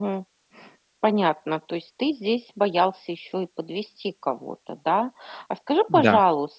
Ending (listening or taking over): listening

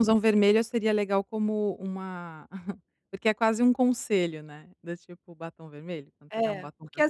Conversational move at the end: taking over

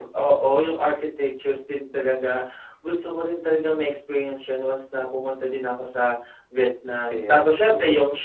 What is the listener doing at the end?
listening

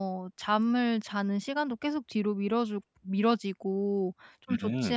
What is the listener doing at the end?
listening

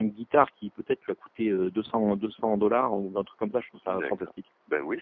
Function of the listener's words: taking over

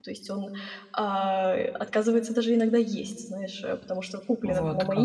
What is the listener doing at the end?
listening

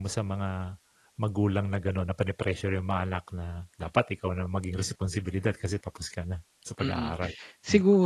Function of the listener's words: taking over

